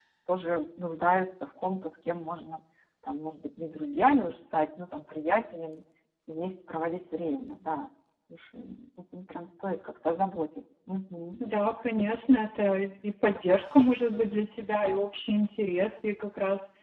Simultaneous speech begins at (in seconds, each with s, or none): none